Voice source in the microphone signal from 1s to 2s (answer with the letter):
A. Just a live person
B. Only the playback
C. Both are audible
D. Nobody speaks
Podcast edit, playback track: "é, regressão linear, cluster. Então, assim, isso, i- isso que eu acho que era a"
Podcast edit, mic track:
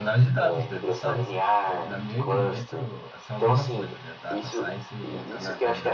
C